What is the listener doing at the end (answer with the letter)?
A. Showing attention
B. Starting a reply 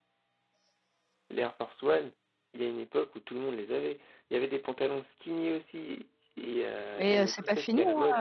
B